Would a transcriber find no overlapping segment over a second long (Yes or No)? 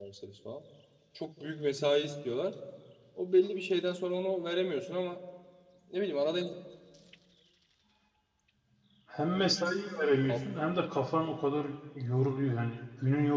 Yes